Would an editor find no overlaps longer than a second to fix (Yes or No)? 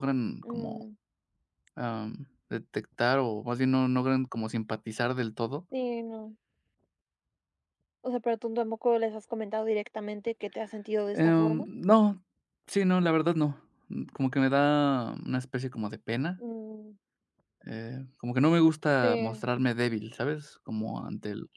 Yes